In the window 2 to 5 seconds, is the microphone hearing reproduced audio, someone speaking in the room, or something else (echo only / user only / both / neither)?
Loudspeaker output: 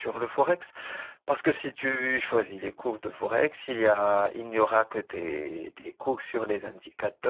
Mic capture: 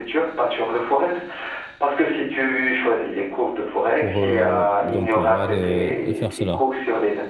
both